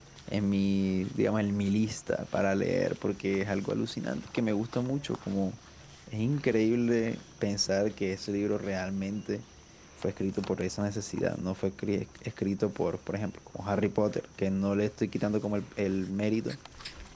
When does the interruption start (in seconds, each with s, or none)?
none